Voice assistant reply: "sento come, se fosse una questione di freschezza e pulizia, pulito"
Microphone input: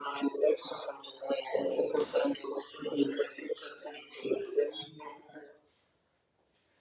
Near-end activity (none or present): none